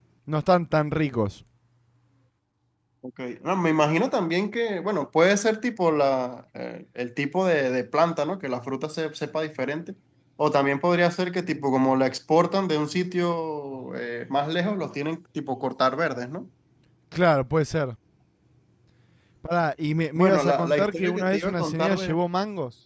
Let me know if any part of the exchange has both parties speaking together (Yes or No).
Yes